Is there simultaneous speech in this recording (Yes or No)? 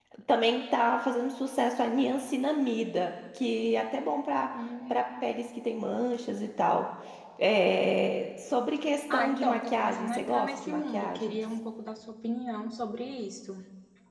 Yes